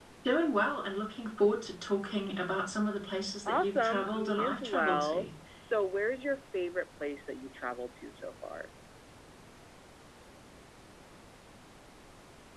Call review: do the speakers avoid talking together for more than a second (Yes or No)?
No